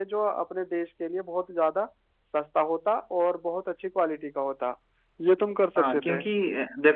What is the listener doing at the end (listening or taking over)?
taking over